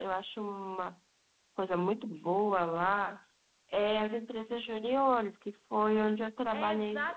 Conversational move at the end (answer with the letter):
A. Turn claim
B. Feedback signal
A